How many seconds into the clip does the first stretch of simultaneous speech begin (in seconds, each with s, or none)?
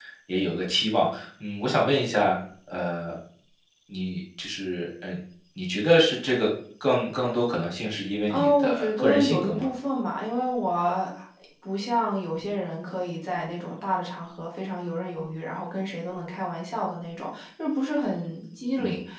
8.3 s